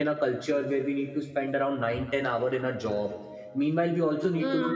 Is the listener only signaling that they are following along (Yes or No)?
Yes